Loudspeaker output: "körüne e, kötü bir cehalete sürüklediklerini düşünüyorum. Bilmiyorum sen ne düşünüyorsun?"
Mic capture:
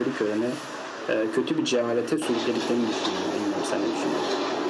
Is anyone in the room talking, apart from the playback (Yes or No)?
No